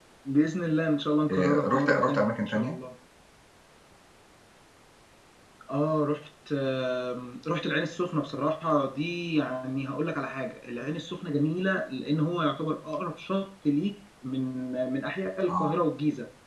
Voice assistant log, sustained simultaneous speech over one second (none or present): present